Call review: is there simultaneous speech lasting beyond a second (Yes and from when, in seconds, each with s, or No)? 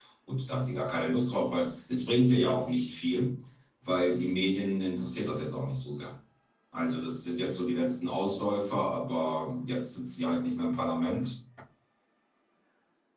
No